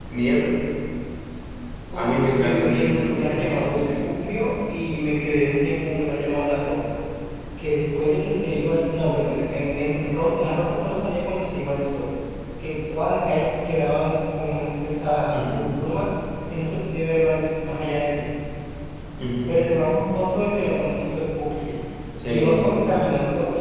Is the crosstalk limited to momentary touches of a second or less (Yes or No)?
No